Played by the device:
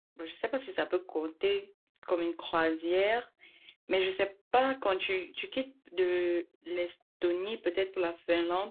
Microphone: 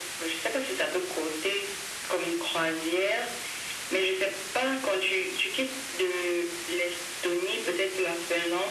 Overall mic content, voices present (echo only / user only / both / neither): echo only